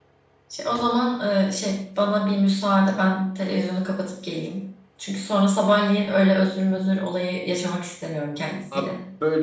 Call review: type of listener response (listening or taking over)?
taking over